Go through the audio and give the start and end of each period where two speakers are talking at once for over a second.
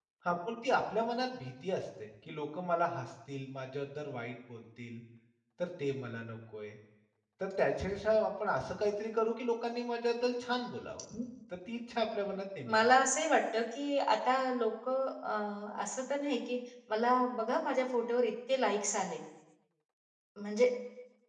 none

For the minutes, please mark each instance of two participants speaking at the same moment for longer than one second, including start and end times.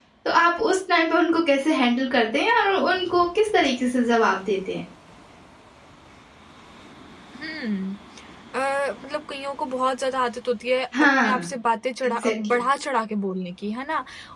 none

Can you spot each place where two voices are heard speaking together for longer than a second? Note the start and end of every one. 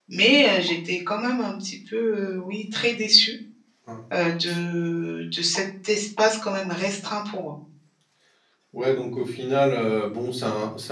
none

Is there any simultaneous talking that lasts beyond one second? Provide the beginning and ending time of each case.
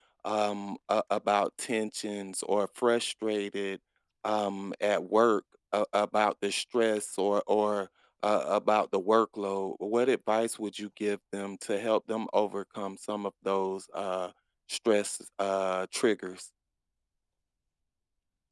none

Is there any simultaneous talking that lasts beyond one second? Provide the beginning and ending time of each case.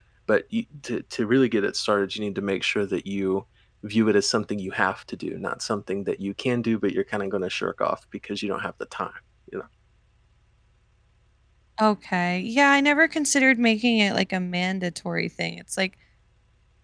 none

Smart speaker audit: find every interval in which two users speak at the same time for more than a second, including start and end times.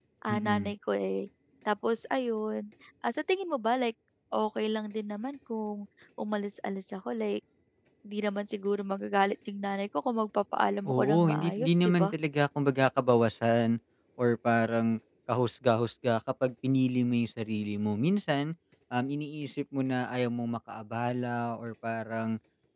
10.9-12.1

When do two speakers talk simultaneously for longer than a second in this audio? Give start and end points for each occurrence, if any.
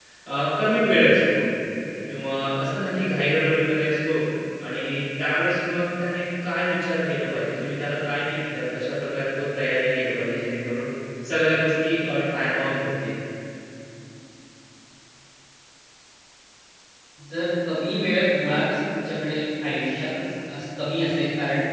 none

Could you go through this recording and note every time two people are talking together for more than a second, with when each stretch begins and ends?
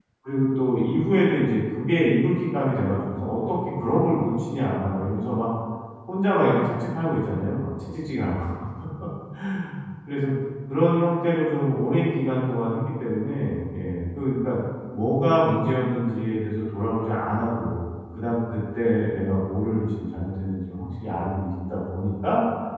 none

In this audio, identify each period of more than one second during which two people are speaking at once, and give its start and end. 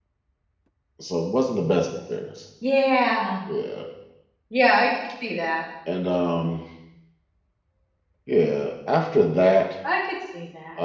none

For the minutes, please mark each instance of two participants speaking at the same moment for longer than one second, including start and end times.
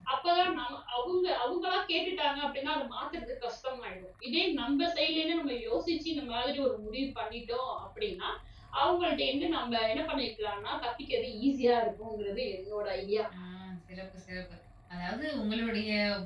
none

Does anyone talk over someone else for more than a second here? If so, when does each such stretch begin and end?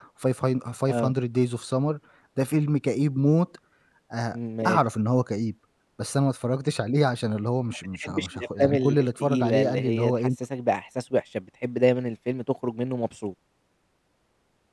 8.0-10.1

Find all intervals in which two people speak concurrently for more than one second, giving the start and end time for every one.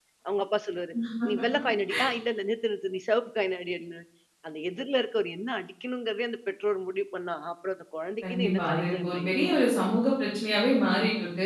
8.2-9.6

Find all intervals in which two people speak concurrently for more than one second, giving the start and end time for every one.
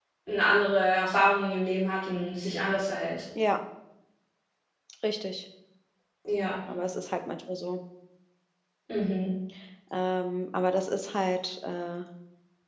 none

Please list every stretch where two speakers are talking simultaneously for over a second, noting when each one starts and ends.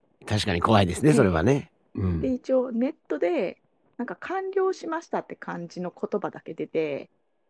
none

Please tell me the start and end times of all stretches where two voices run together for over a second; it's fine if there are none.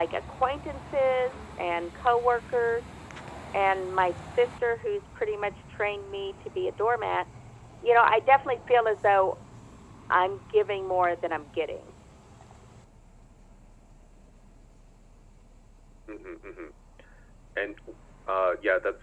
none

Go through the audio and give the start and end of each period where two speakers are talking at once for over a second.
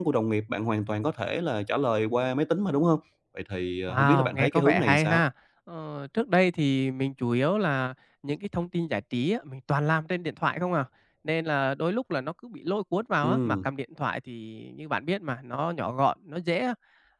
3.9-5.2

